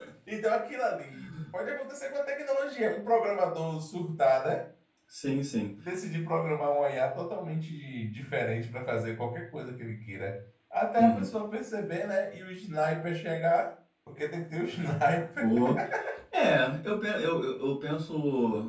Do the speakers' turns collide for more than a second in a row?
No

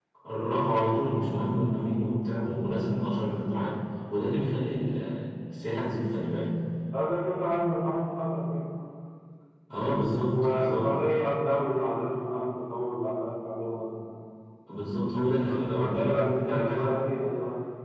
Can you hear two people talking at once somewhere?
Yes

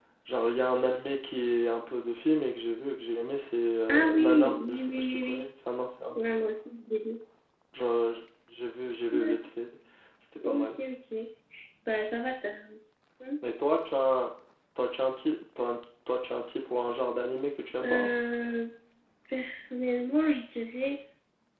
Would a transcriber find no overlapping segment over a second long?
No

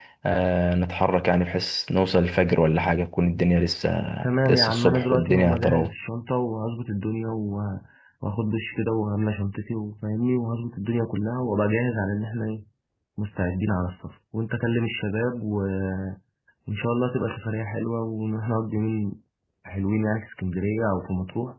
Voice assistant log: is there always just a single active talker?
No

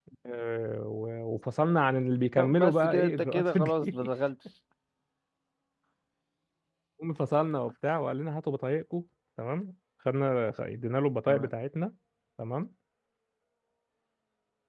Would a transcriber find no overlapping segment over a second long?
No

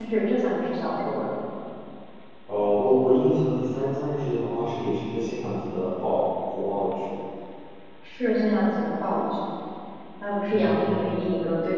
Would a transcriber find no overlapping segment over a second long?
Yes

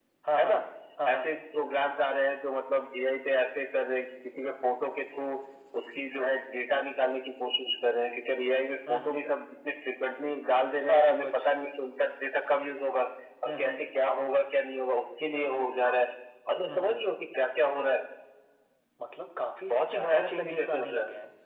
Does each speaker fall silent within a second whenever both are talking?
No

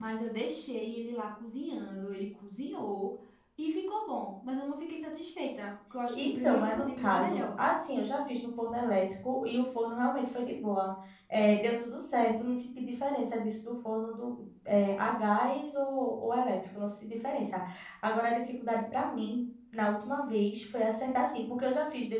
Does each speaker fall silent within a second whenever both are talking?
No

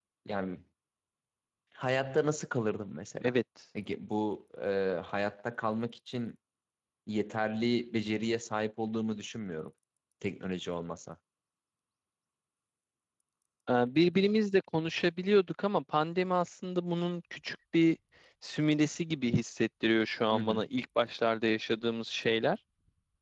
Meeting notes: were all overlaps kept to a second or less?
Yes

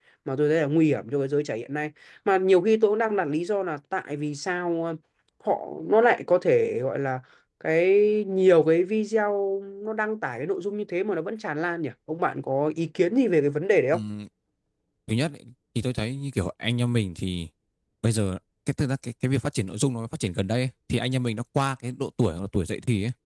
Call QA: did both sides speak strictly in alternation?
Yes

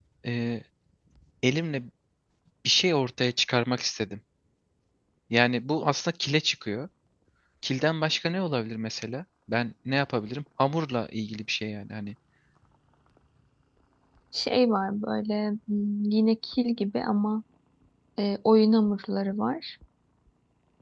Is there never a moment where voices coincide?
Yes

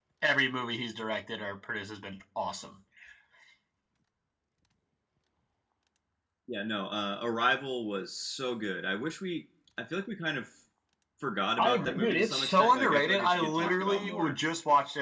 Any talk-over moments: Yes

